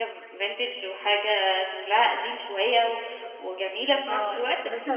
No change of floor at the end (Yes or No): No